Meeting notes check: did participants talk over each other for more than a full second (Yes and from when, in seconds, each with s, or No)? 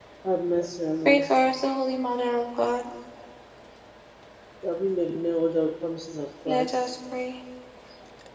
No